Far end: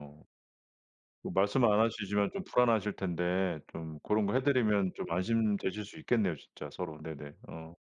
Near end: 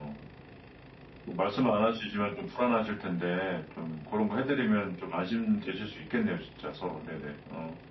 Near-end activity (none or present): none